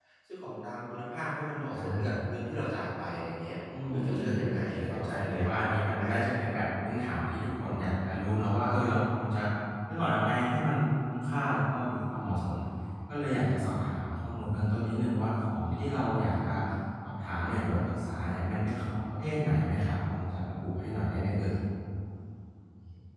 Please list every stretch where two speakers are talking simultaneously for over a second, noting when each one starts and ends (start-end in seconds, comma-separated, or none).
3.9-5.6